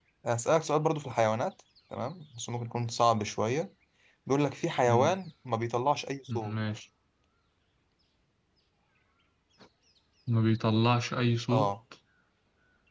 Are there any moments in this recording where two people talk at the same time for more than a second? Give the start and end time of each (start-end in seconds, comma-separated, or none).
none